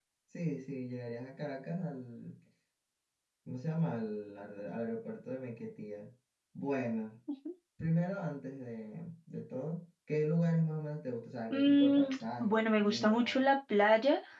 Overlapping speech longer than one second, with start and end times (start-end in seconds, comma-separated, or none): 11.5-13.4